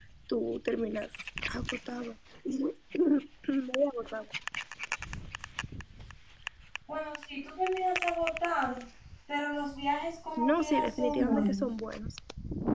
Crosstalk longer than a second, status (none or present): present